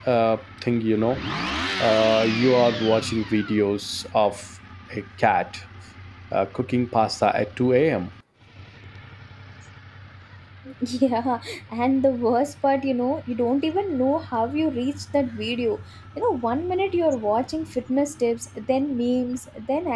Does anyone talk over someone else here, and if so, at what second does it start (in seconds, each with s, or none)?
none